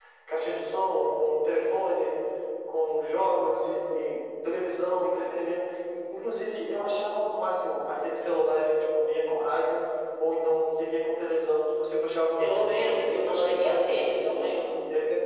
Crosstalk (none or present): present